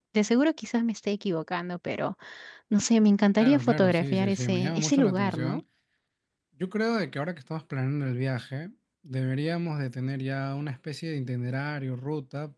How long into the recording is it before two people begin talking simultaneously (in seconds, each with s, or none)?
3.4 s